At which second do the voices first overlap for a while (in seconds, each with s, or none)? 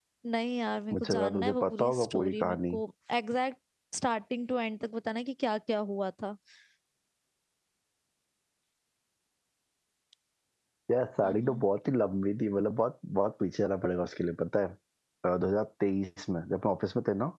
0.9 s